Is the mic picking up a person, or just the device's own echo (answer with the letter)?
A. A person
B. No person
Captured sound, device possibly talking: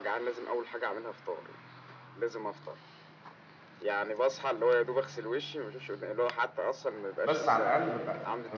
A